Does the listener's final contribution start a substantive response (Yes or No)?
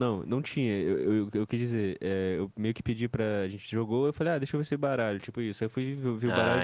No